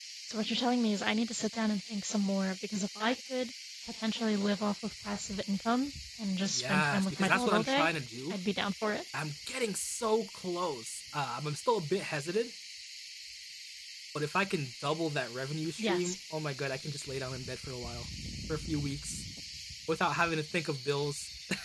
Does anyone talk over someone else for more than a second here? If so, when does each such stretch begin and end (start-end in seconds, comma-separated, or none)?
6.5-7.9